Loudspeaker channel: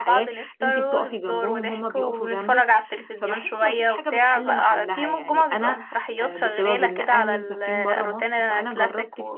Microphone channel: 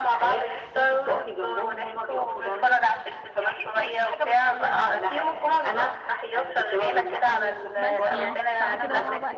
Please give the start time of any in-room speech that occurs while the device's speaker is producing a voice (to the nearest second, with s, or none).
8 s